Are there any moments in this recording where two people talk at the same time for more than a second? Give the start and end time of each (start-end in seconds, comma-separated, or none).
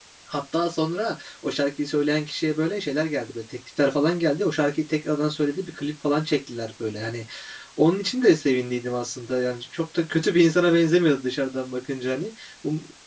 none